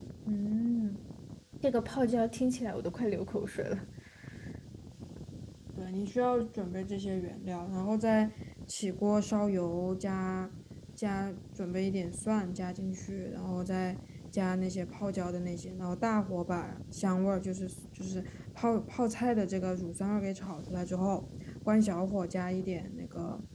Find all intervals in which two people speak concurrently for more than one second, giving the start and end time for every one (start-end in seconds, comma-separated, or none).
none